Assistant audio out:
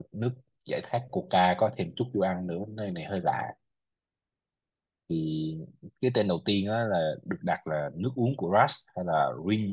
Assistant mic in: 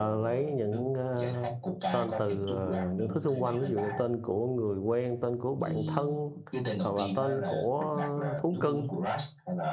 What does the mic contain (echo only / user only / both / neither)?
both